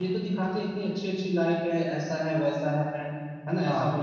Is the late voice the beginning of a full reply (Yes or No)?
No